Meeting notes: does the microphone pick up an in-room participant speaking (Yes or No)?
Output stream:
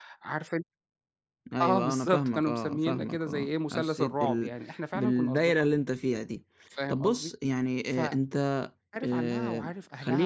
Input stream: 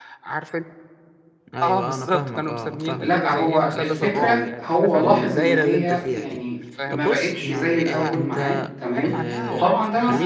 Yes